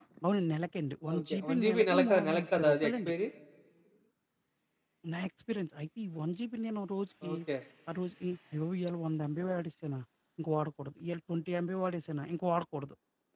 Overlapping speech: Yes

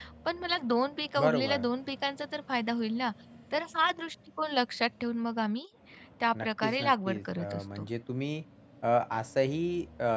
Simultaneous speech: Yes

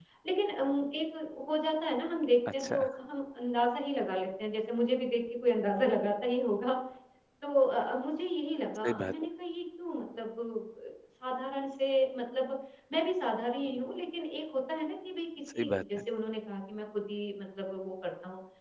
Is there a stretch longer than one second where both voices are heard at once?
No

